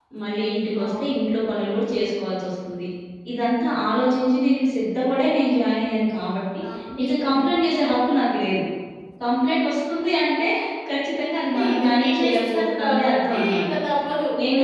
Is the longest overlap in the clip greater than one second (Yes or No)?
Yes